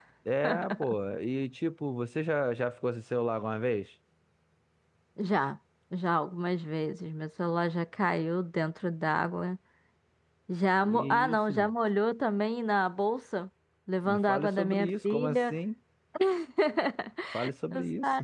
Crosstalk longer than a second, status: present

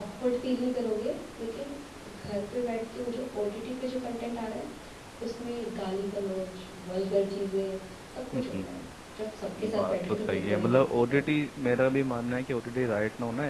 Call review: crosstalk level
present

